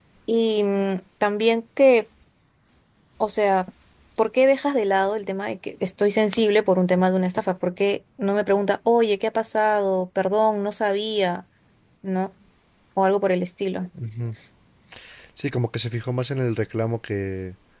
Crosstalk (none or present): none